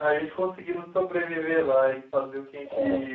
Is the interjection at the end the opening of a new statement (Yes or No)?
No